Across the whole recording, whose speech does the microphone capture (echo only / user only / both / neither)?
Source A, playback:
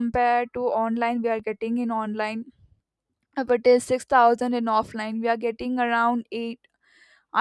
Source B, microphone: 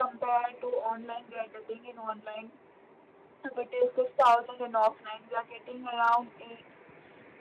echo only